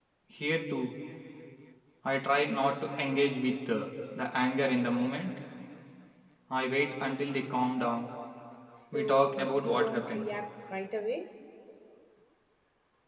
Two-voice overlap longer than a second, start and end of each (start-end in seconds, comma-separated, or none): 8.9-10.3